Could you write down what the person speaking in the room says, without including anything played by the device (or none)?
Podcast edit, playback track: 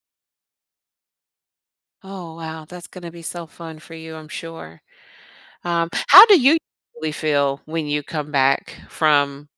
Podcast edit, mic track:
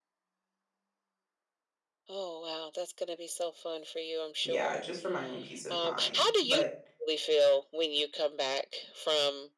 yeah, just for my own peace of mind. But